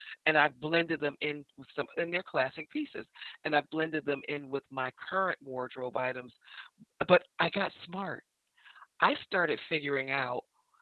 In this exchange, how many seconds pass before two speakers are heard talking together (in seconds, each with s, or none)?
none